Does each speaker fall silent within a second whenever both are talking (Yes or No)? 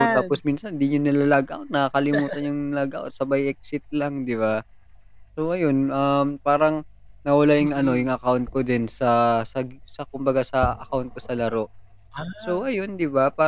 Yes